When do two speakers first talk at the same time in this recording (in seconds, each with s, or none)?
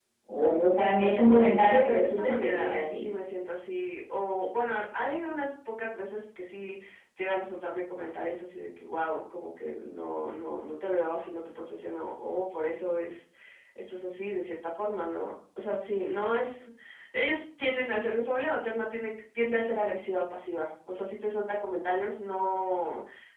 1.6 s